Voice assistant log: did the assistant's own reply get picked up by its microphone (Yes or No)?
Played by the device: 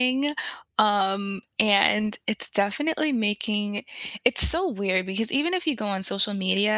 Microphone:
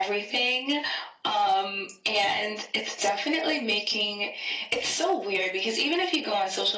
Yes